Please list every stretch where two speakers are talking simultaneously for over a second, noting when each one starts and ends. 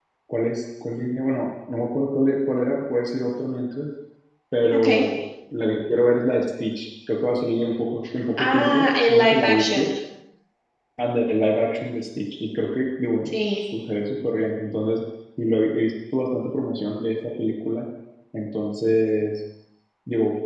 8.4-9.9

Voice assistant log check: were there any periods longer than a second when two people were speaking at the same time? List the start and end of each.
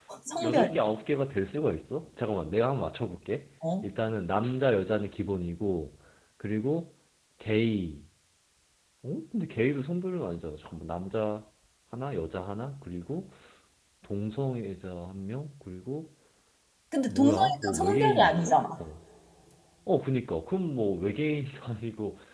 17.1-18.6

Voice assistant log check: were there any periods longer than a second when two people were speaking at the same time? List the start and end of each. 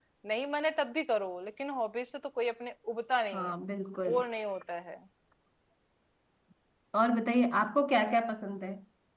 none

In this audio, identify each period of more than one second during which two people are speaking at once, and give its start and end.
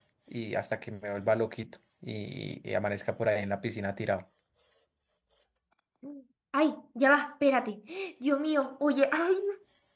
none

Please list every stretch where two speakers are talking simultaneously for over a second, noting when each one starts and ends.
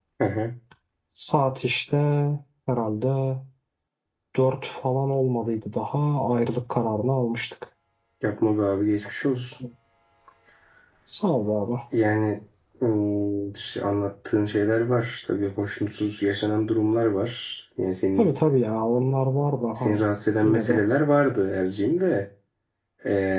none

